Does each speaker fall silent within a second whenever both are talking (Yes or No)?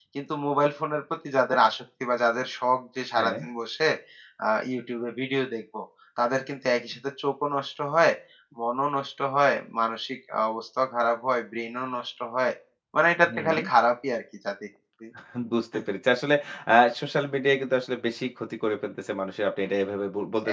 Yes